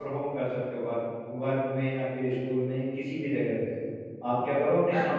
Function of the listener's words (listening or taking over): taking over